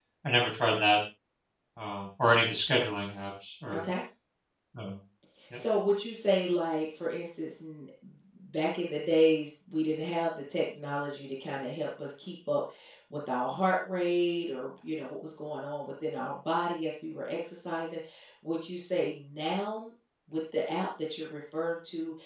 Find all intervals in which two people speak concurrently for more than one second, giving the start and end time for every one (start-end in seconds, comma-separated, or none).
none